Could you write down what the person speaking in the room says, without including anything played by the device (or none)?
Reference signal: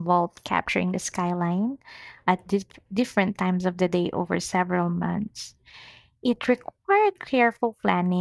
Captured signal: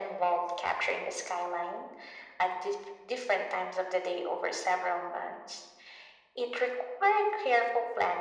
none